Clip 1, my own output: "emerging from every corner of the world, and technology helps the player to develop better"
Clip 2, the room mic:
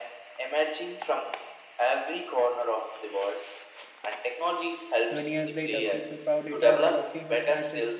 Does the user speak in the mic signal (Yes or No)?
Yes